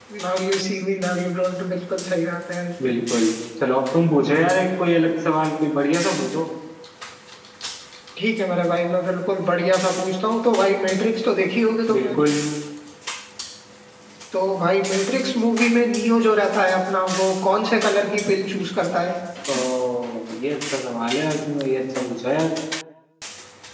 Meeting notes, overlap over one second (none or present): none